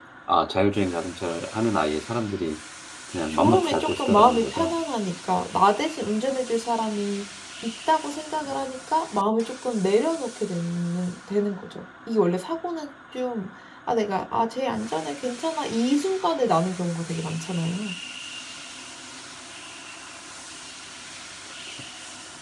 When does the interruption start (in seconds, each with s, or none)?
3.3 s